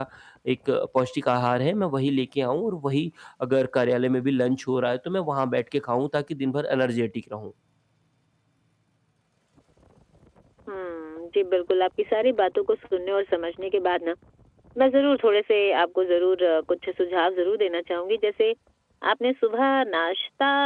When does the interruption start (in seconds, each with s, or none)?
none